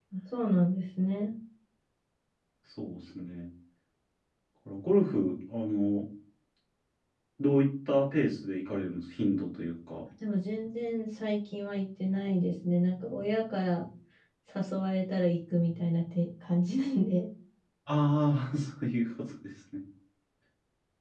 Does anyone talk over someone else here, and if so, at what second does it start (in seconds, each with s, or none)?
none